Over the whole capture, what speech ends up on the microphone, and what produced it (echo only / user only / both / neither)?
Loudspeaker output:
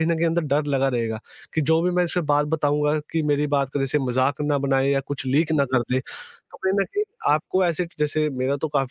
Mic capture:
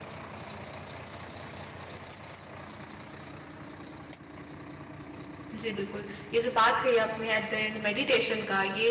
user only